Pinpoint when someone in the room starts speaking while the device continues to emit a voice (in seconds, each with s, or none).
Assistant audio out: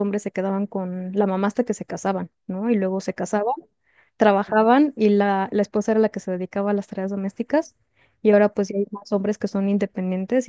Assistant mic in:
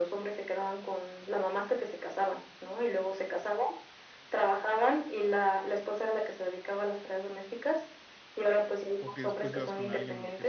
9.0 s